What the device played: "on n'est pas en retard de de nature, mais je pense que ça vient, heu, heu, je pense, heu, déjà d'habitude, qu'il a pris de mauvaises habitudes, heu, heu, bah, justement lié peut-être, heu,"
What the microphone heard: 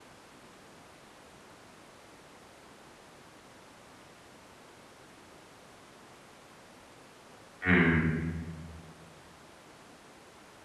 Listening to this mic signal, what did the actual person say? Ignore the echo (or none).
Mmh.